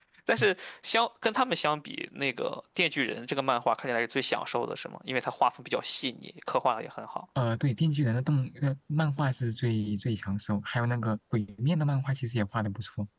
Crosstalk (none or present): none